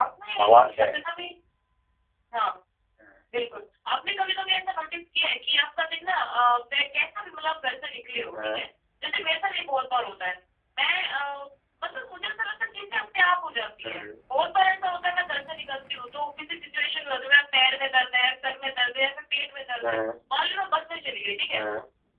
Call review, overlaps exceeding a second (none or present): none